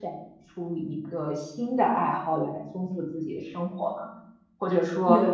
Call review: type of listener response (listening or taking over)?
listening